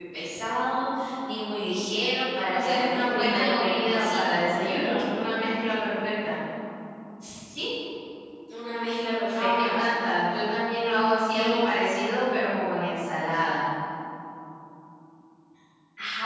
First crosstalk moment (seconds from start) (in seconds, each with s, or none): 2.5 s